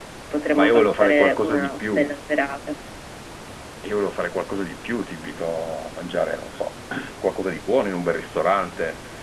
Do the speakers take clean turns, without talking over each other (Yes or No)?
No